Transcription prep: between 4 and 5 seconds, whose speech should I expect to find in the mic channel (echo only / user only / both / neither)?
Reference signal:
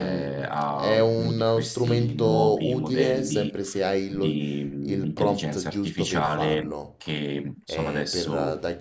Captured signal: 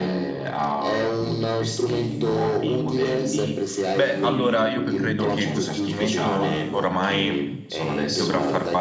both